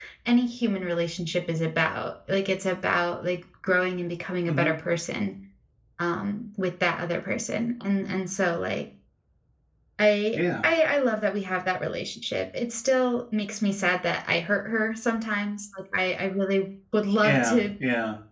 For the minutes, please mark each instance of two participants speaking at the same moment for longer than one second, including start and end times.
none

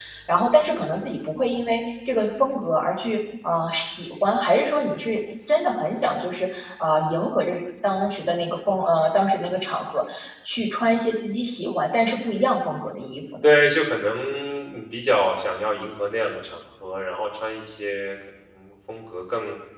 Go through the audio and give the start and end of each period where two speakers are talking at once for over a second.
none

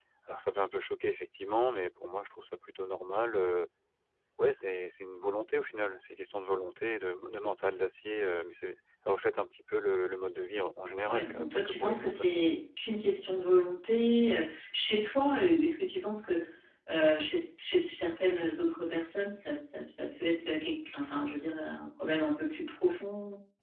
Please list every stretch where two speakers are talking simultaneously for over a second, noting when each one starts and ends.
11.0-12.4

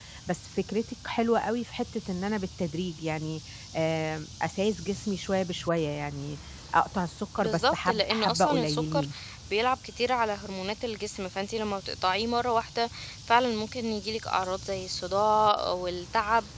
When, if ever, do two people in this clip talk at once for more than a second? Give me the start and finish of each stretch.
7.4-9.0

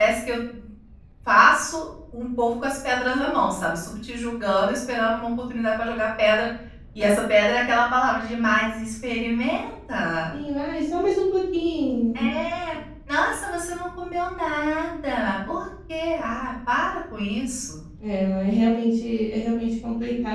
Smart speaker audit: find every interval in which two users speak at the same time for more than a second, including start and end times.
none

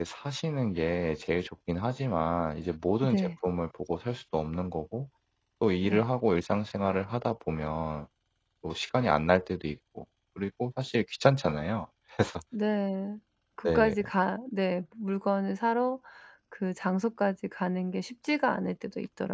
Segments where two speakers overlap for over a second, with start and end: none

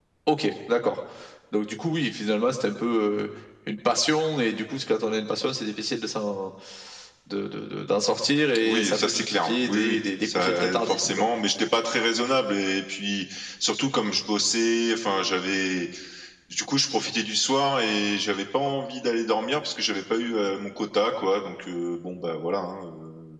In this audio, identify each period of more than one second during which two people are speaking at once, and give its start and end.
8.6-11.3

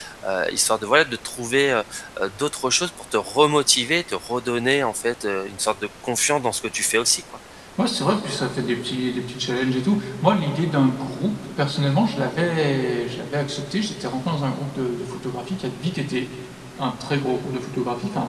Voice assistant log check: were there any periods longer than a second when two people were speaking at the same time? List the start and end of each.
none

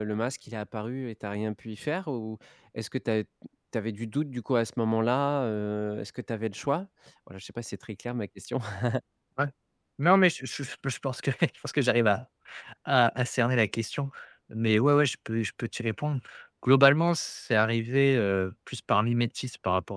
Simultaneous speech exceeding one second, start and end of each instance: none

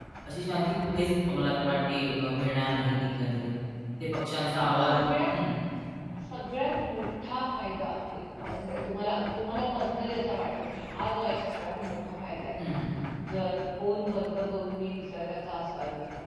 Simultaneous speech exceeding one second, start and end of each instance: none

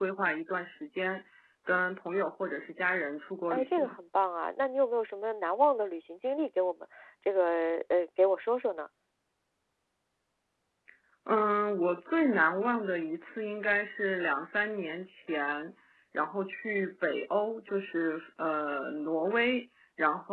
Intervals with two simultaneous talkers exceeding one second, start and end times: none

